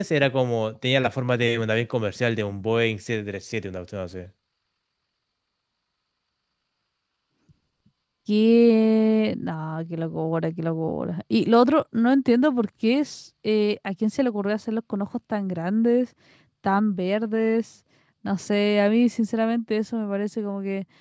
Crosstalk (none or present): none